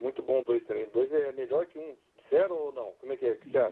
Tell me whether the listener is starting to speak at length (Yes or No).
Yes